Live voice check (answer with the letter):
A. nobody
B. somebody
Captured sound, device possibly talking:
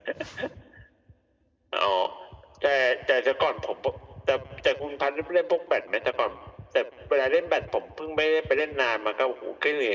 A